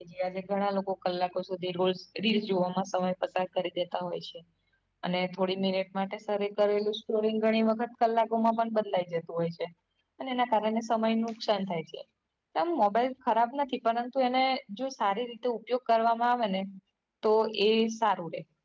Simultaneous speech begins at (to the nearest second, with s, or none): none